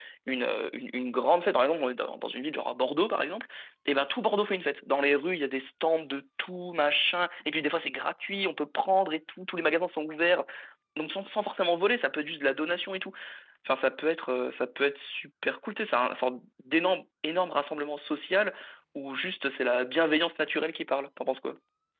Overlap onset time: none

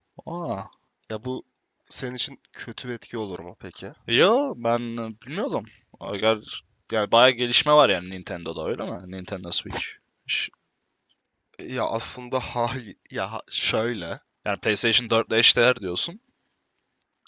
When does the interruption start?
none

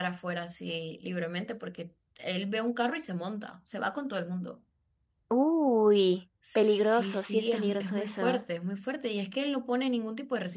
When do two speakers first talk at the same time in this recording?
6 s

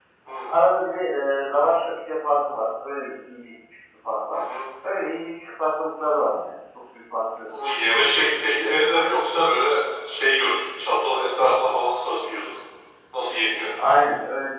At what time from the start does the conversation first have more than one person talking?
none

